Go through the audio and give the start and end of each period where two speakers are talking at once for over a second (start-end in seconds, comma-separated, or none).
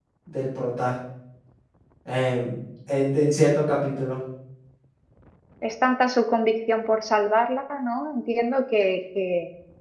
none